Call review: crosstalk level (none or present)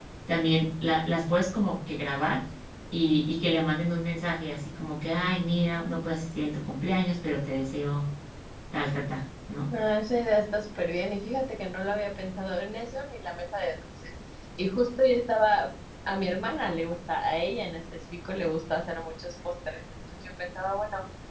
none